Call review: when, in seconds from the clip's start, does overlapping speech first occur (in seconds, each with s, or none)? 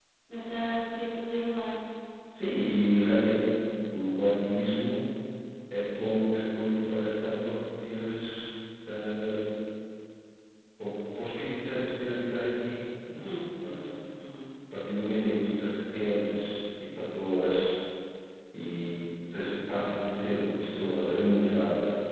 none